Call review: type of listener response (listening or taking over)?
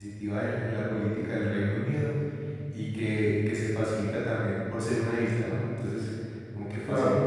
listening